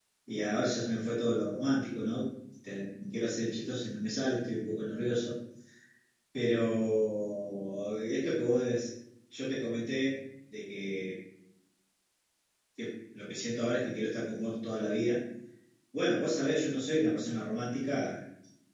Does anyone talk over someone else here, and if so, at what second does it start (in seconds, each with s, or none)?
none